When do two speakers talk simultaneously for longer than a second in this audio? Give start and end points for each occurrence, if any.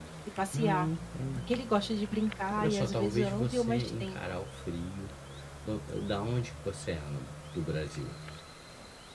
2.6-4.4

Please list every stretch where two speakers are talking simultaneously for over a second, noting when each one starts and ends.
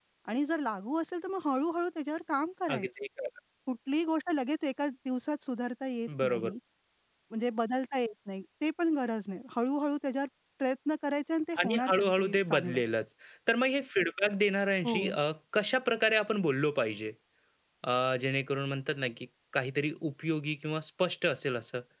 11.6-12.8

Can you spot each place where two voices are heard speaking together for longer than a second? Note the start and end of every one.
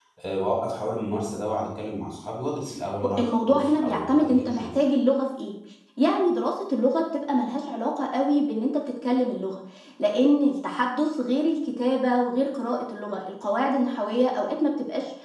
3.2-4.7

